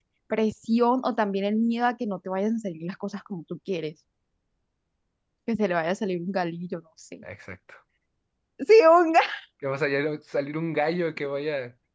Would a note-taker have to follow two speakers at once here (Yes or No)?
No